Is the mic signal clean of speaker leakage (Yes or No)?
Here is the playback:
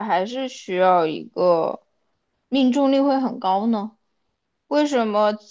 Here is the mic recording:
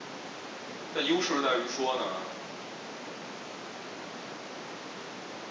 Yes